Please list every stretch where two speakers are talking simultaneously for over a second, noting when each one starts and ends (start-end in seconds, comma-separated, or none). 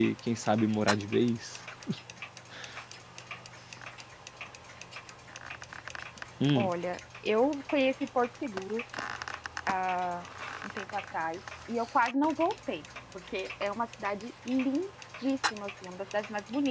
none